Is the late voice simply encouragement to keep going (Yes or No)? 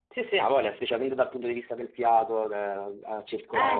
Yes